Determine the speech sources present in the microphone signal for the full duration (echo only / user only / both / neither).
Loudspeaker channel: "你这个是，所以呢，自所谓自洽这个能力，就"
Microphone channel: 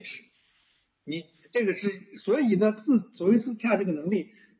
echo only